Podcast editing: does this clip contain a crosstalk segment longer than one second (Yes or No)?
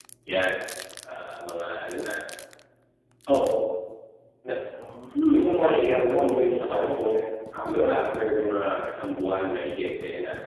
Yes